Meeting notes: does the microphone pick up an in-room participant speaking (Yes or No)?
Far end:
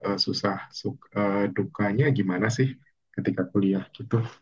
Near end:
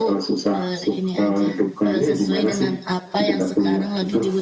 Yes